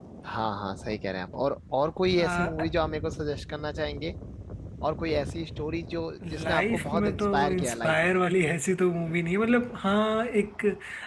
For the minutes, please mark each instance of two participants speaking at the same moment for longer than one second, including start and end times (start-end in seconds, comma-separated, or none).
6.4-8.2